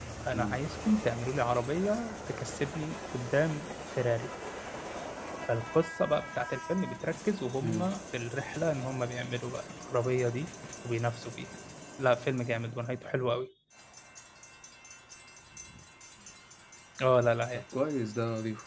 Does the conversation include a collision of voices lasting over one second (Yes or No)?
No